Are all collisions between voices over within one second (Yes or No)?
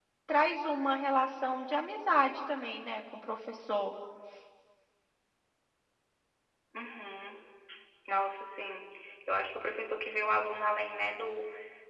Yes